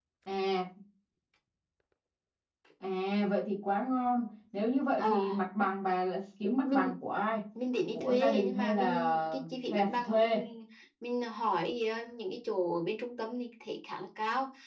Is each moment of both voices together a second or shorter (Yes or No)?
No